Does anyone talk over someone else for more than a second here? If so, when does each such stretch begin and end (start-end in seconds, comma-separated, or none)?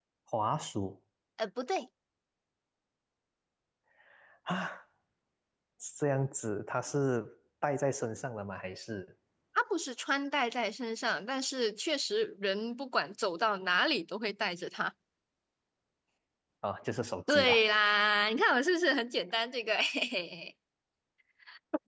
none